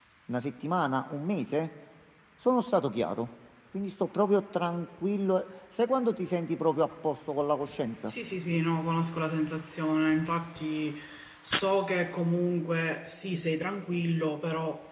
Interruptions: none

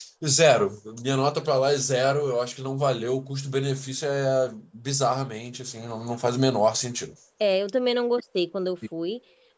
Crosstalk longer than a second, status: none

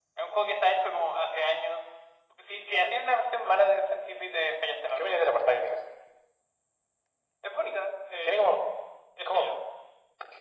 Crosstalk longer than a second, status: none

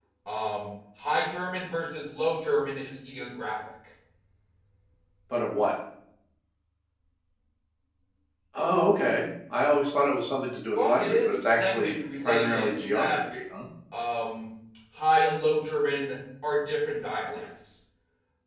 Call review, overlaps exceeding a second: present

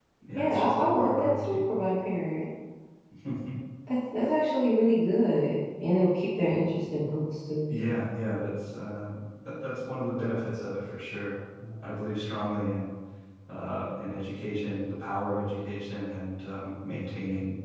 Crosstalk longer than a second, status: present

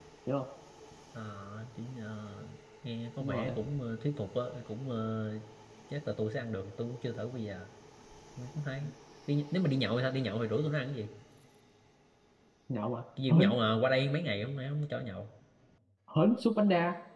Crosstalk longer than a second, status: none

